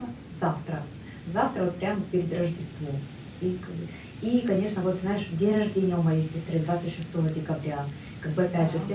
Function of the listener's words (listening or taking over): listening